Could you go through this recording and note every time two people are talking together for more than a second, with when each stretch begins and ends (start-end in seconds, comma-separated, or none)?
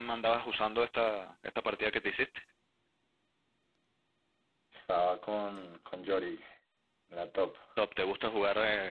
none